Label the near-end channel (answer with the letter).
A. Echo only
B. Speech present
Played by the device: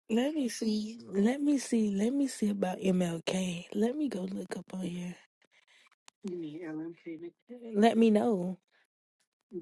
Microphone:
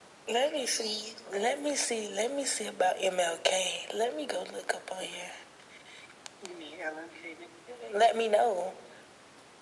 A